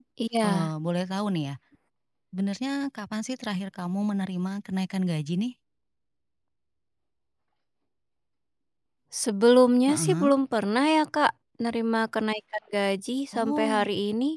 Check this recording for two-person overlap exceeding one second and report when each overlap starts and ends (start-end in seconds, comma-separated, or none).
none